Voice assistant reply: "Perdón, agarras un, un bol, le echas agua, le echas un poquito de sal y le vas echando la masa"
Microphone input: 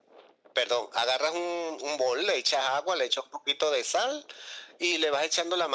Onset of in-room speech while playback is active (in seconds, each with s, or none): none